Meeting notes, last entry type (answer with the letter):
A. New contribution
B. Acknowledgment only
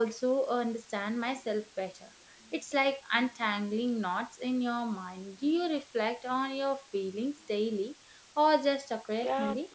A